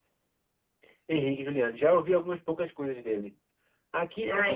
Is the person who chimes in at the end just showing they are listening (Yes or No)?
Yes